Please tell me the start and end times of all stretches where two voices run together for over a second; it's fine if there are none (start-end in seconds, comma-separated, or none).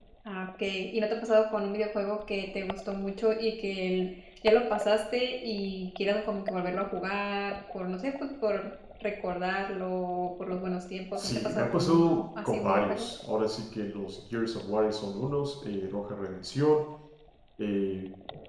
11.2-13.1